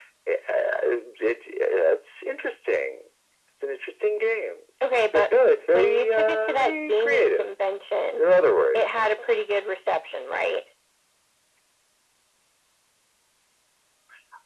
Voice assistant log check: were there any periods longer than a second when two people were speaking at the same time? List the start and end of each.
5.7-7.5

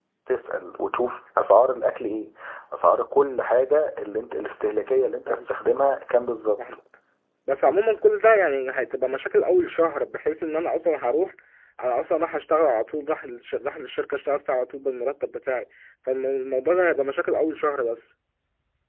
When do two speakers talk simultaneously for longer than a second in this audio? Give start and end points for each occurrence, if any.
none

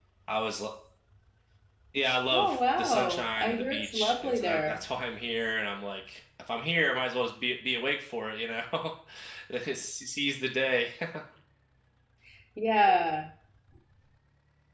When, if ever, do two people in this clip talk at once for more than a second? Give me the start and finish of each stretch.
2.3-4.8

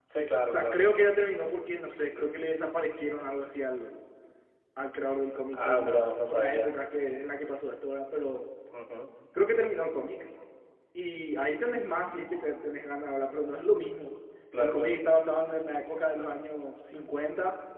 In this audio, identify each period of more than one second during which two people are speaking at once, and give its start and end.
5.5-6.8

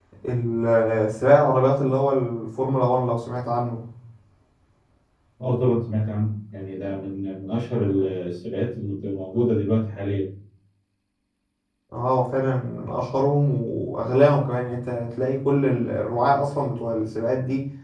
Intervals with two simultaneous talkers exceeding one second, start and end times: none

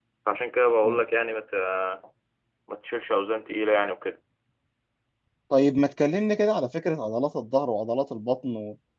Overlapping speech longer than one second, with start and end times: none

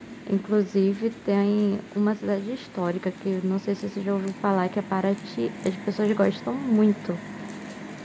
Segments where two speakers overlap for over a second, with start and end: none

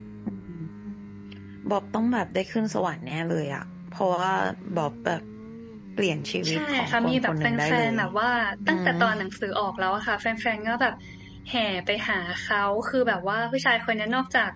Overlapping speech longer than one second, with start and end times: 6.5-7.8

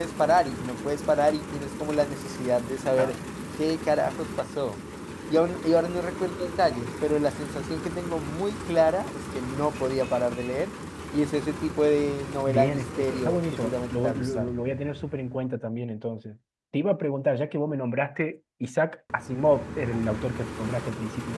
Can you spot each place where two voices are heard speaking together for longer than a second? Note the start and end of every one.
12.5-14.5

